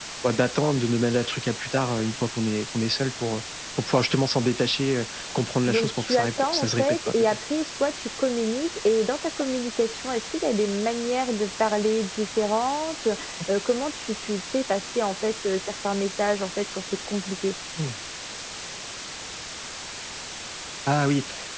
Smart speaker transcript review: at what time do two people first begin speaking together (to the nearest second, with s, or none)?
6 s